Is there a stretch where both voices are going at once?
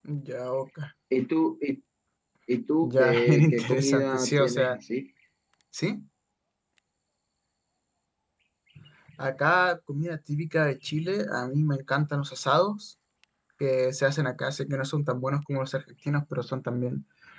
Yes, from 2.8 s

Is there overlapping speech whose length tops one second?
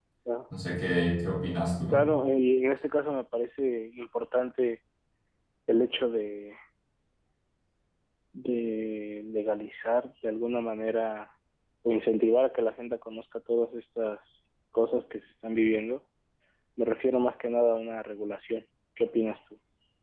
No

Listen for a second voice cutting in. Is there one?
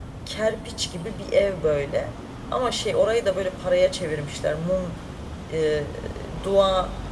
No

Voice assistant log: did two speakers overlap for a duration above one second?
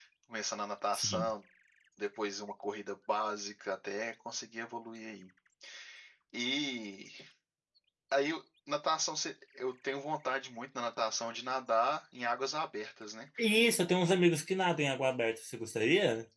No

